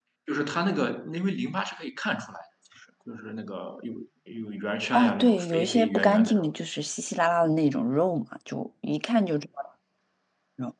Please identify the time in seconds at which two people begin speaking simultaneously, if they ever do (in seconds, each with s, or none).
4.9 s